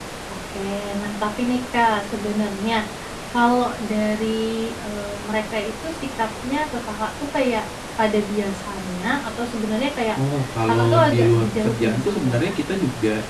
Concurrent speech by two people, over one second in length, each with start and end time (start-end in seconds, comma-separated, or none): 10.7-12.5